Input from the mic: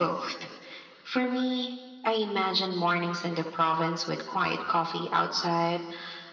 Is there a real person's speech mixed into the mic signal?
No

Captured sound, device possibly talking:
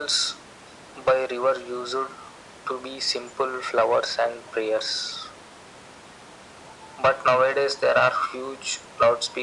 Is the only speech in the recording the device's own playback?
Yes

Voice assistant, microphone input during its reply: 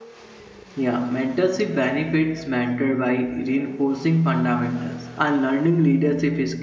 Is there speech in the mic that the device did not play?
Yes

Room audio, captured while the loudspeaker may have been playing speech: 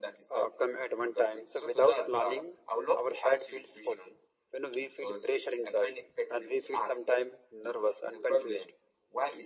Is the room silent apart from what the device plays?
Yes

